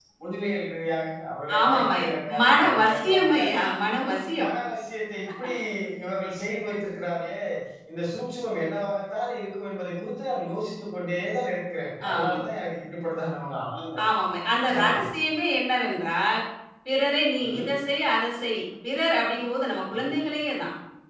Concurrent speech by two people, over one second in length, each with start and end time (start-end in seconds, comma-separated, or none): 1.6-3.4